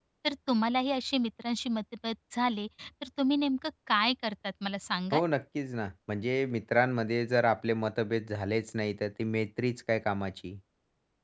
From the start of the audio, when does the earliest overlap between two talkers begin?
none

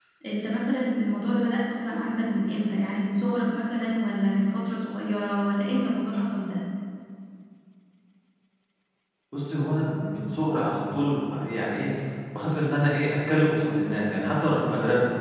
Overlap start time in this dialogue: none

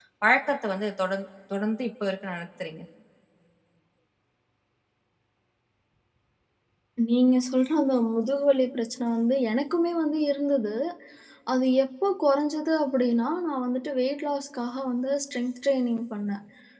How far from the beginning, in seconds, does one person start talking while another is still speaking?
none

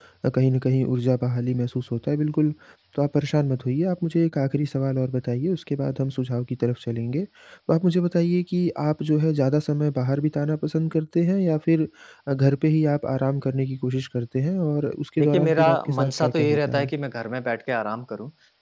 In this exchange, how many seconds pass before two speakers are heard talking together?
15.2 s

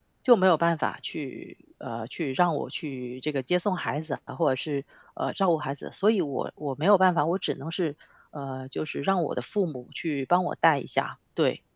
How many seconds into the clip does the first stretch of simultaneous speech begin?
none

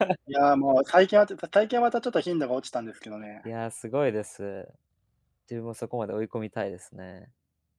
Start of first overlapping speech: none

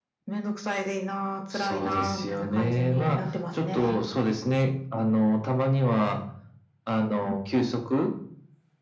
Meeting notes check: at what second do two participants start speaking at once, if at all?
1.5 s

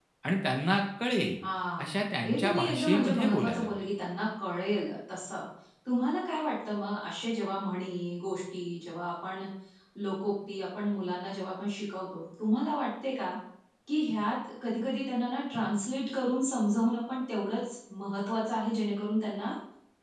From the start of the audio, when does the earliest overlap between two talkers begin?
1.8 s

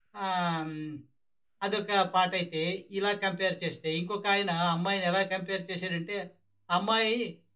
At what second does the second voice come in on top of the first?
none

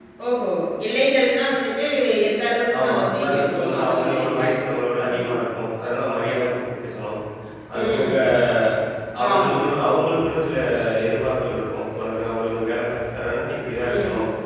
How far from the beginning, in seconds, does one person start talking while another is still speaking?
2.8 s

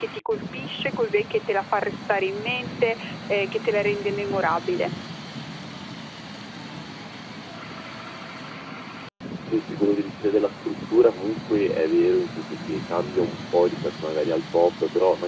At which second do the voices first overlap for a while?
none

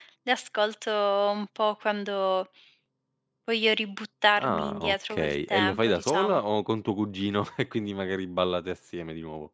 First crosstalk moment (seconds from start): 4.3 s

